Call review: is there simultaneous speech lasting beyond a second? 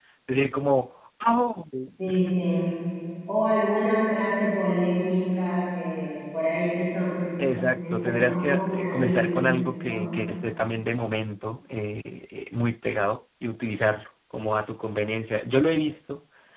Yes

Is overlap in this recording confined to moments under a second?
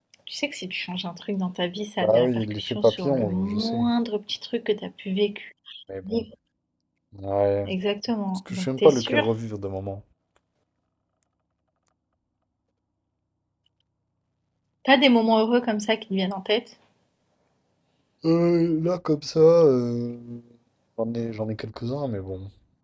No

